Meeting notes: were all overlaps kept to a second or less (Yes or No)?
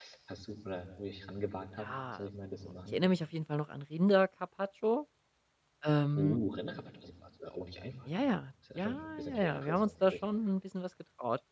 No